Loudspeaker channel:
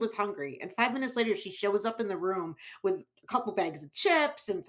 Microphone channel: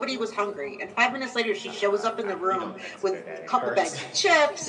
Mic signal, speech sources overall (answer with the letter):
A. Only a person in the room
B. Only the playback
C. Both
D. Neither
C